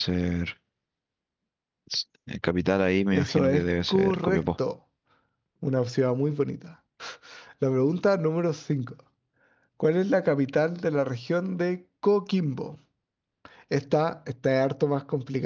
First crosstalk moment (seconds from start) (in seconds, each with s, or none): 3.1 s